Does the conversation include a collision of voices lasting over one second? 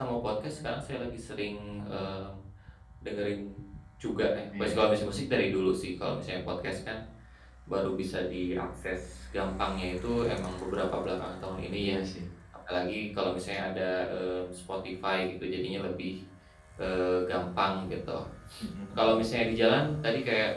No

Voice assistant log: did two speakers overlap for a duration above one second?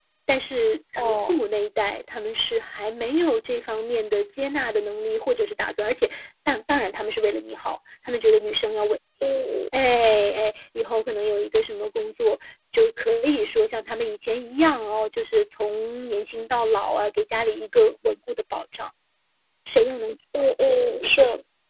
No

